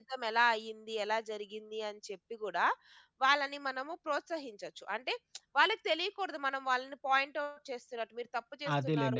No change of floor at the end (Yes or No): No